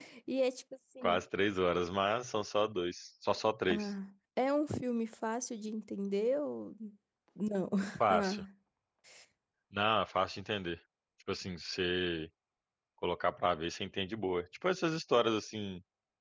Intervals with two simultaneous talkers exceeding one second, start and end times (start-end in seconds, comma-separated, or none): none